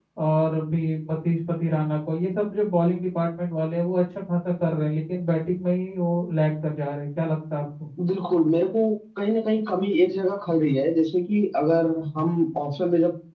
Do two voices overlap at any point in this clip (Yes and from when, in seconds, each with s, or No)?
No